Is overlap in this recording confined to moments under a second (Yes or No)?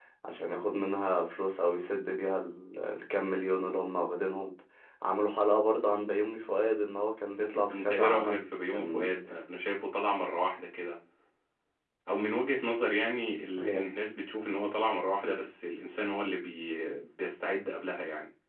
No